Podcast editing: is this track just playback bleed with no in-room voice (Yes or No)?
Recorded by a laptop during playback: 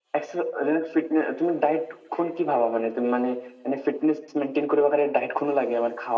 Yes